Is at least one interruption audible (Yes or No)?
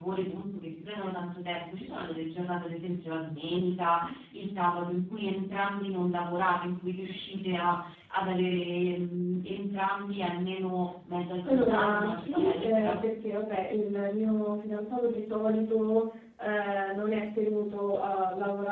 Yes